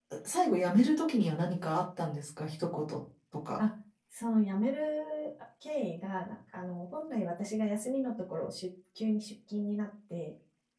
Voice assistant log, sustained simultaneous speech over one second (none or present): none